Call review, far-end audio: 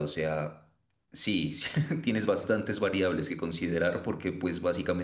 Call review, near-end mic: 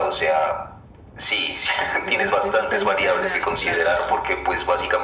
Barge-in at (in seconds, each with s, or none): 2.0 s